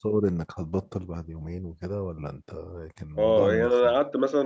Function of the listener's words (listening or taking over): taking over